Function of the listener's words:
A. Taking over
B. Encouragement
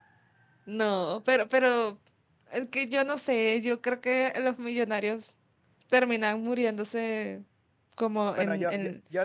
A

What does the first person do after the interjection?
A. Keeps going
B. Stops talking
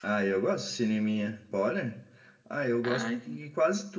A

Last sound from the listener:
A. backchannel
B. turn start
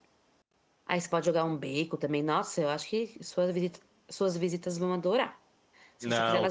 B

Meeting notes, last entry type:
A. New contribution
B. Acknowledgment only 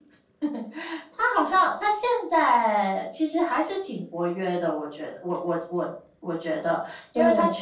B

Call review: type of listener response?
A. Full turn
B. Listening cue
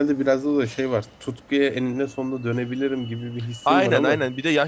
A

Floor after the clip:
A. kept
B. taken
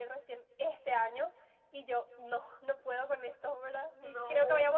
A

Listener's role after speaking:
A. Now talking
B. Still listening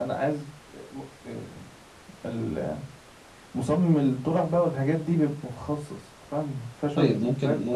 A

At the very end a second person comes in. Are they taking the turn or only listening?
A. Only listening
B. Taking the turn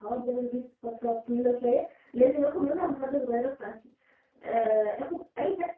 A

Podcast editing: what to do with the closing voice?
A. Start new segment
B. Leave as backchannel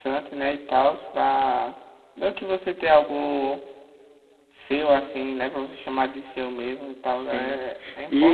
A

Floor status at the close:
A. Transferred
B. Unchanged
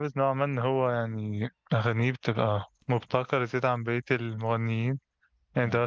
B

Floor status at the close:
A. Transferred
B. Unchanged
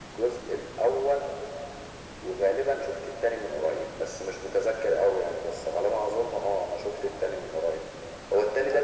B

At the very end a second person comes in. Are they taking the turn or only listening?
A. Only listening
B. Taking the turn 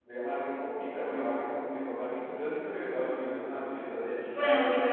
B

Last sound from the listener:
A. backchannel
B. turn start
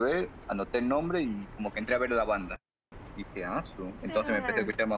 A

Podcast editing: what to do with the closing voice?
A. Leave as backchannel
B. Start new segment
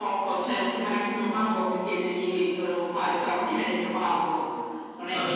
B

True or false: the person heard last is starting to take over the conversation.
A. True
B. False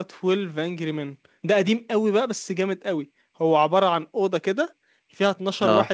B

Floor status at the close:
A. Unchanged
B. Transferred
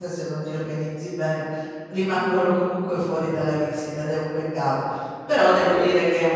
A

